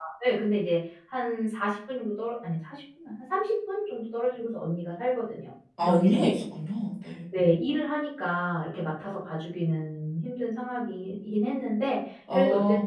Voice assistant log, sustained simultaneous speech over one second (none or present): none